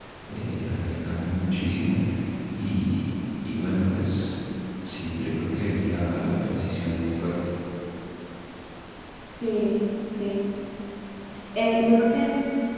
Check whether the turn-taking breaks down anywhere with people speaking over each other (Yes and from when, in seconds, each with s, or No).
No